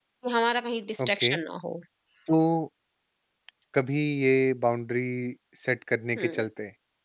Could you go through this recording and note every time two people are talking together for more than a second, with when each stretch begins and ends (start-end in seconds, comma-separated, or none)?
none